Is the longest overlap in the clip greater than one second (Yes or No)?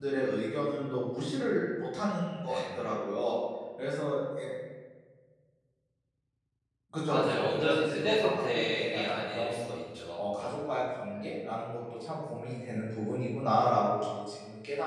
Yes